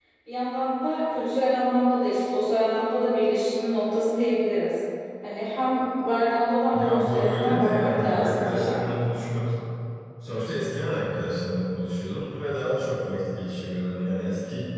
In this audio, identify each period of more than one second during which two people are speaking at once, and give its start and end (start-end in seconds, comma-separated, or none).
6.7-8.7